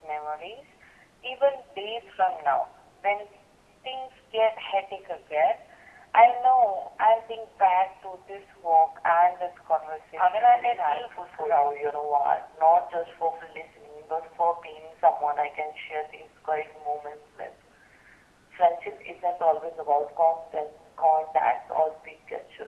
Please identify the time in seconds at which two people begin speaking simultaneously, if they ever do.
10.2 s

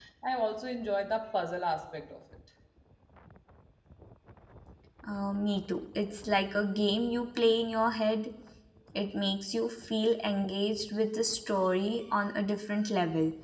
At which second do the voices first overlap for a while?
none

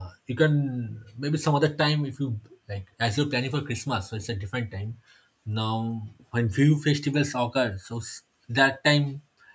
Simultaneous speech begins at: none

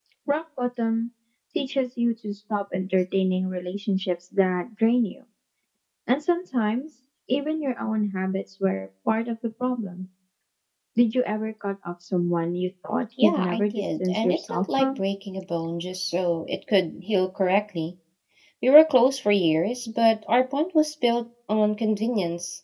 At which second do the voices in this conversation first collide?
13.2 s

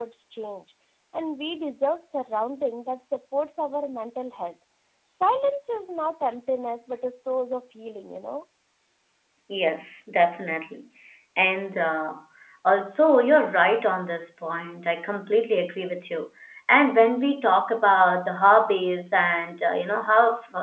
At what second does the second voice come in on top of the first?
none

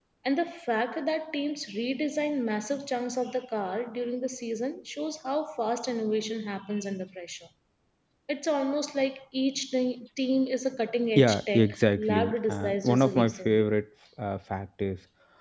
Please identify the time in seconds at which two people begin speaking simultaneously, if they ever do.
11.2 s

